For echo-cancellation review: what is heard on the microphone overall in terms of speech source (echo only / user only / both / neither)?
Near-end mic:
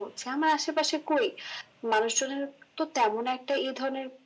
echo only